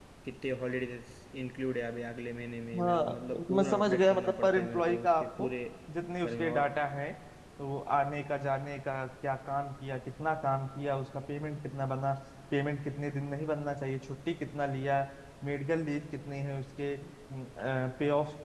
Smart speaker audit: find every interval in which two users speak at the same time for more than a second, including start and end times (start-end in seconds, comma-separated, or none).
3.5-5.5